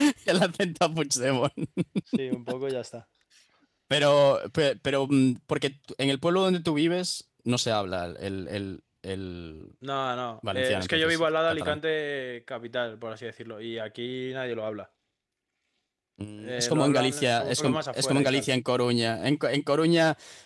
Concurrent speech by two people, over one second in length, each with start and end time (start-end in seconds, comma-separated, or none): 10.5-11.8, 16.4-18.5